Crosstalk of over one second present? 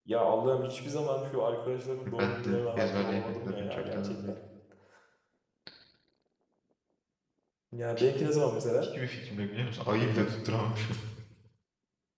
Yes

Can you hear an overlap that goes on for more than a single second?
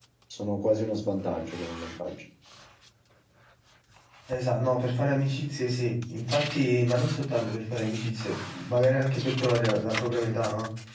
No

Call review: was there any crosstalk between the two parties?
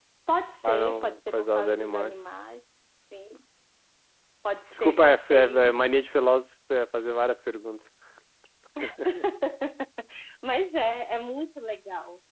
Yes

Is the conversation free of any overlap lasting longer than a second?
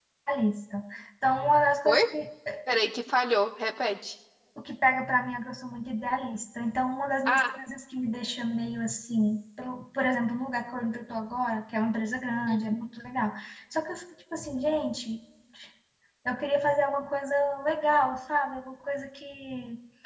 Yes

